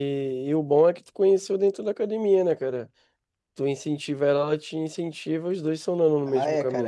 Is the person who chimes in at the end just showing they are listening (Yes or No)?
No